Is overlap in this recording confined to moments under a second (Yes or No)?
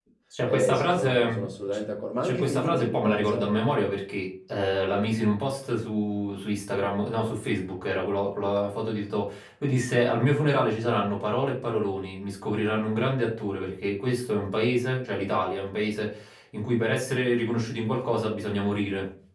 No